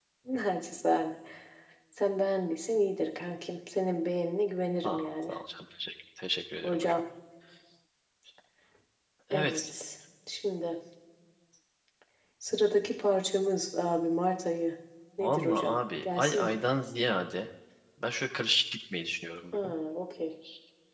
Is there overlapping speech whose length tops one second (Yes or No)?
Yes